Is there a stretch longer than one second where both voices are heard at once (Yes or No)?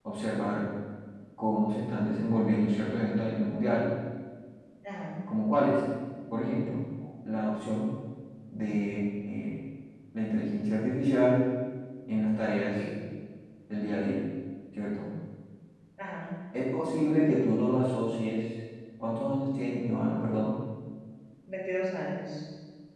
No